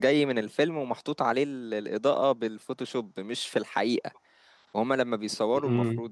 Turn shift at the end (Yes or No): No